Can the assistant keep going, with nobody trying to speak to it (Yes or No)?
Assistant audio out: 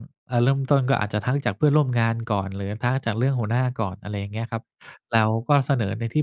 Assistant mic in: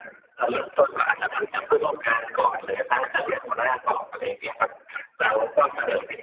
Yes